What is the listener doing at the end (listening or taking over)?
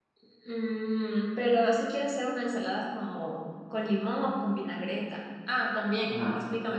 listening